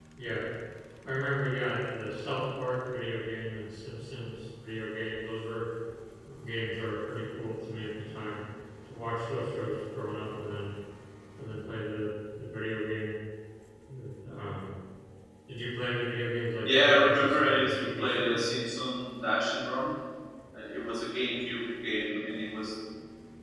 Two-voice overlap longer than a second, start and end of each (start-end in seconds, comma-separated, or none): 16.6-18.4